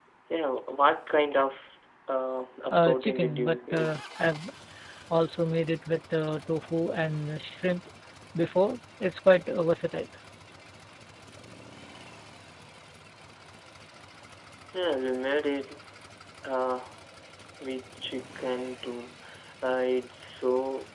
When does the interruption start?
2.7 s

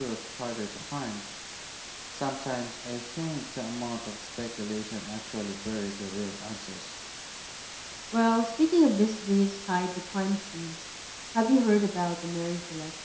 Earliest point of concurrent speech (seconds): none

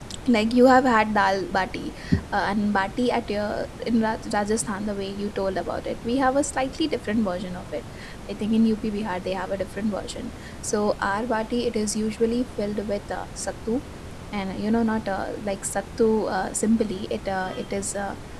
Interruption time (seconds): none

